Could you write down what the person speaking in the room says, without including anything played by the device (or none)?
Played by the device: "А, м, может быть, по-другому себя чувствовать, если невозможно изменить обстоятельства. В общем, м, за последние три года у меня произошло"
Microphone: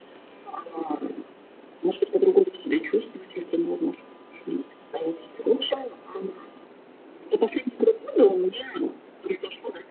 none